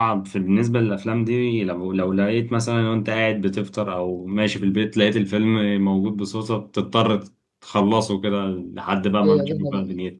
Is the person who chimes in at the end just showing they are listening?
No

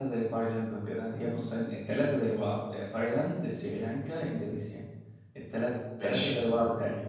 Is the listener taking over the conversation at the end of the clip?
No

